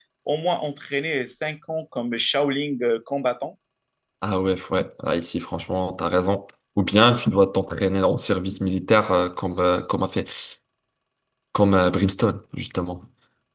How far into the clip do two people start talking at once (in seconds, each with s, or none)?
none